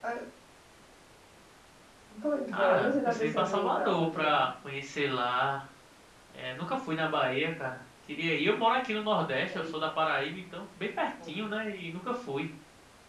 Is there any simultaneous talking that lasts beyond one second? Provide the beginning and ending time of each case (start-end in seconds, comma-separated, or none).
2.5-4.5